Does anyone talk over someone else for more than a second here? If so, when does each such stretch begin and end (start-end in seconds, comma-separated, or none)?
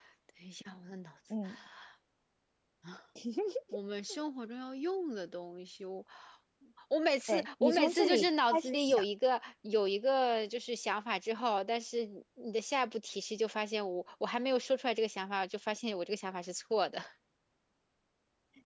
7.3-9.0